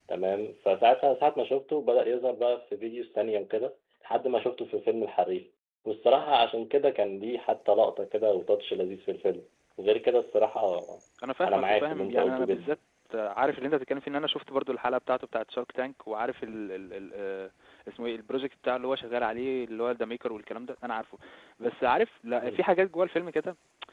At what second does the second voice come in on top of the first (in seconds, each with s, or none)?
11.4 s